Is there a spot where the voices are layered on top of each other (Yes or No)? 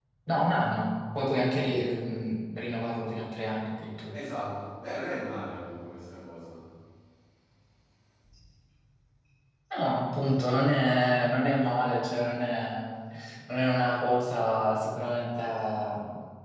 No